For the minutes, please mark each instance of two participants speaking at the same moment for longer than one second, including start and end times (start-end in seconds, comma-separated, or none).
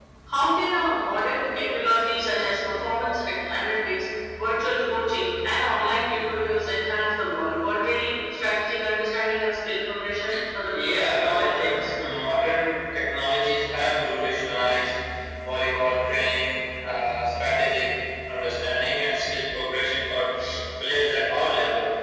10.7-11.9